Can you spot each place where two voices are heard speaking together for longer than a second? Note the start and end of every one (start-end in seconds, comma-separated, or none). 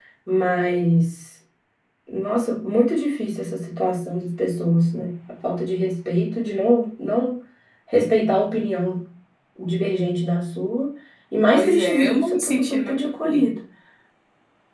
11.5-13.4